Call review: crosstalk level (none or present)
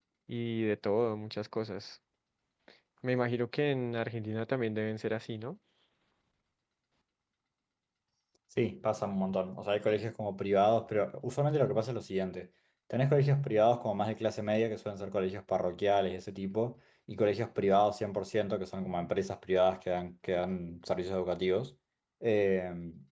none